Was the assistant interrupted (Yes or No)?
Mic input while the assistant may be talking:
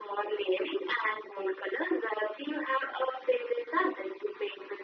No